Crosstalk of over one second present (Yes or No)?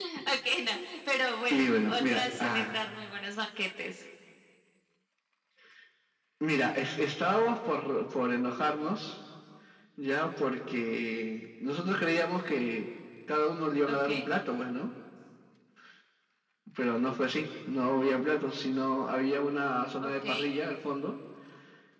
Yes